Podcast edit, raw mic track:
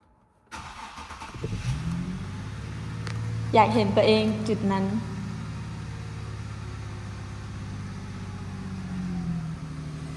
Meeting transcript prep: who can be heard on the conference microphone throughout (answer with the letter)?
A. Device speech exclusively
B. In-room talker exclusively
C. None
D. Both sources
B